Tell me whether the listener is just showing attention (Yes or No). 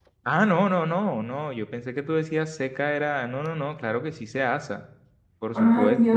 No